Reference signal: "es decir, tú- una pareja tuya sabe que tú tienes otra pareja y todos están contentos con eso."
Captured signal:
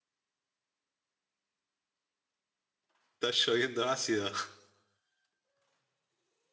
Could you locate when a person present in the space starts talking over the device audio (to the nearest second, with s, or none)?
3 s